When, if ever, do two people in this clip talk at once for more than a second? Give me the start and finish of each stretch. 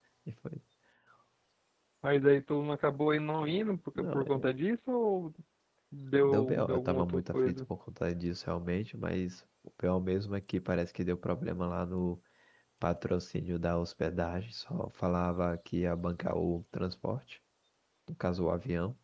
6.2-7.6

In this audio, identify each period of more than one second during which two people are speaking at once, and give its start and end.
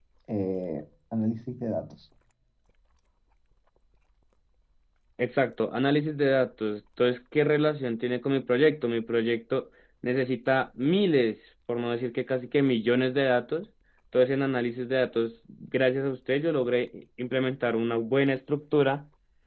none

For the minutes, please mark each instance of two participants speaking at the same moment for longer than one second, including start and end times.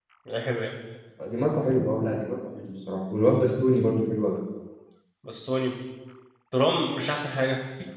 none

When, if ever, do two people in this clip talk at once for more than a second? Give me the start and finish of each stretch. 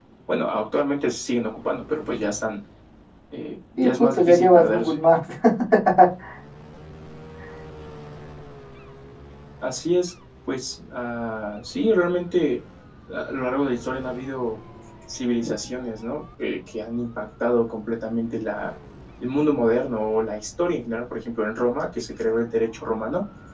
3.8-5.0

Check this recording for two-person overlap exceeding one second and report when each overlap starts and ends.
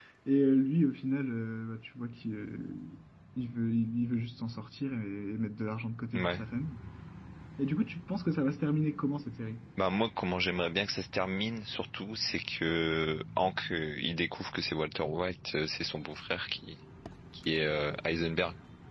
none

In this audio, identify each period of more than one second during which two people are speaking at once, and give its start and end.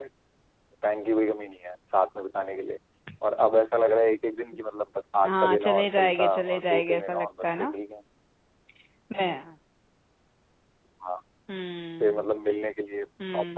5.2-7.7

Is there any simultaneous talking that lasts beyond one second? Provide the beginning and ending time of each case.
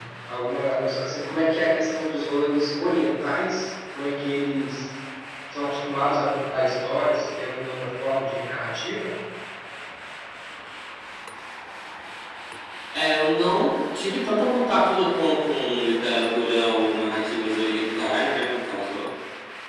none

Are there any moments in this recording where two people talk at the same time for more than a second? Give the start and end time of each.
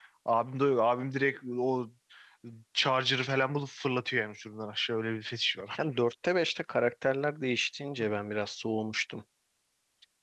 none

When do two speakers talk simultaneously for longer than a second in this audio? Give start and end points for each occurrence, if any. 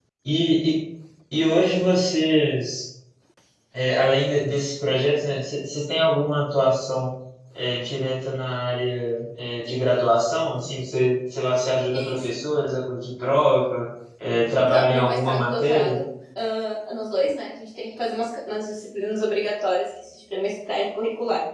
14.6-16.0

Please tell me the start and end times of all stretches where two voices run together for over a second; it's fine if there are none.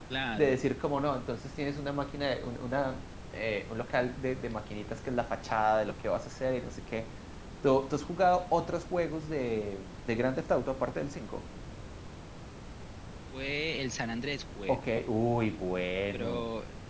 none

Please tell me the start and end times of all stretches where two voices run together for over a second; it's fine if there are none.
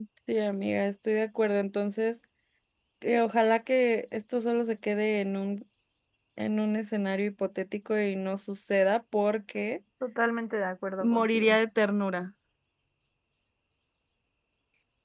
none

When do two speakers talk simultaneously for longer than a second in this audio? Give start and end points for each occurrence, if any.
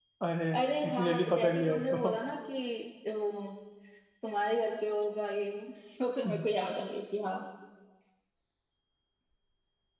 0.9-2.1

